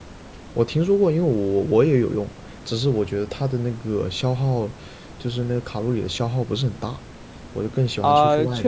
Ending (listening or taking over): taking over